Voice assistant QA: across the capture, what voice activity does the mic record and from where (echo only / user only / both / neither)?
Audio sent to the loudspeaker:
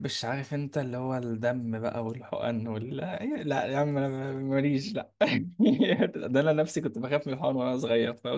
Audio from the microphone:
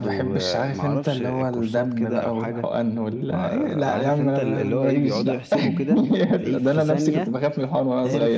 both